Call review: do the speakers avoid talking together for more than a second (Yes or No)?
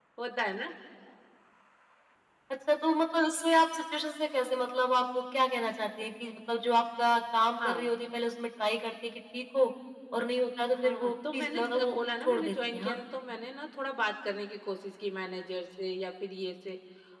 No